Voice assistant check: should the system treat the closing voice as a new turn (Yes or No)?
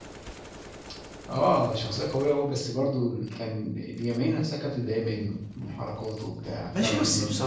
Yes